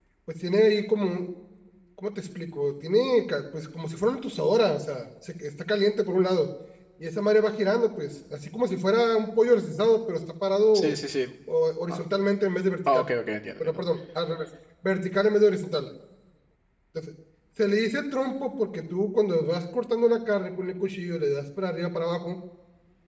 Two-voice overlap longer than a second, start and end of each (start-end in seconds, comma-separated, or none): none